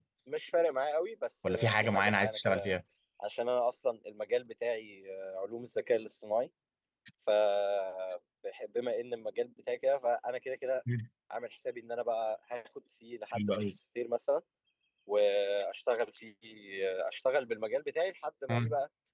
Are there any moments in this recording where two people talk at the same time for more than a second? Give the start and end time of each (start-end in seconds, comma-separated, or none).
1.5-2.8